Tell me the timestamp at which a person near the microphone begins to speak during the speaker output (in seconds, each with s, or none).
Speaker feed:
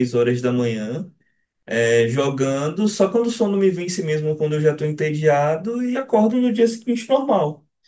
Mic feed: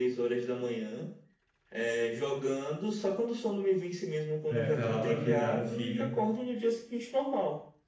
4.5 s